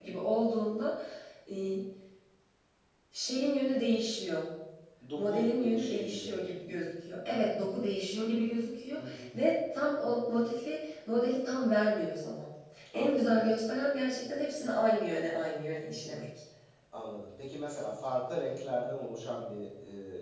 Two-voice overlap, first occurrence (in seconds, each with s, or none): 5.2 s